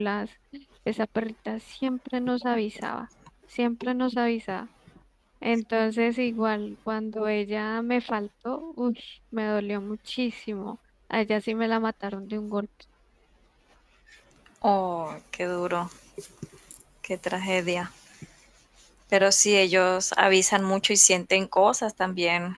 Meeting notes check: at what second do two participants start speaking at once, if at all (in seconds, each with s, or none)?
none